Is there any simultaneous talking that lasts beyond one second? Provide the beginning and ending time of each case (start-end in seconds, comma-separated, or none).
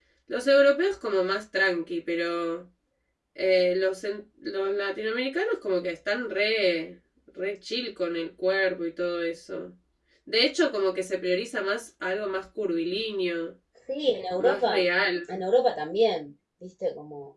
none